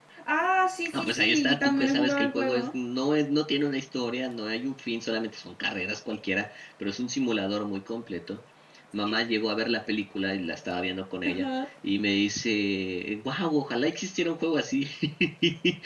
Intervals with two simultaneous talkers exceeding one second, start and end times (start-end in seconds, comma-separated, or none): 0.9-2.6